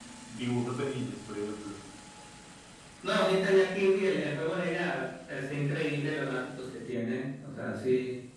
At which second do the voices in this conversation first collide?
none

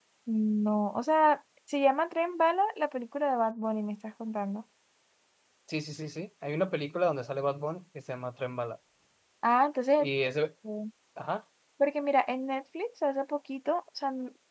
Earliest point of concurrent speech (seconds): none

